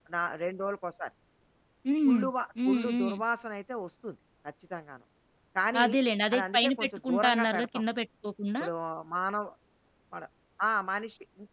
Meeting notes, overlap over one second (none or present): present